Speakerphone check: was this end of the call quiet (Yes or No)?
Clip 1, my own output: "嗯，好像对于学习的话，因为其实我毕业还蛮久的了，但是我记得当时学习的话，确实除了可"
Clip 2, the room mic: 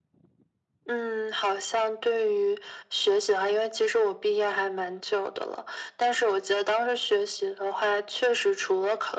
Yes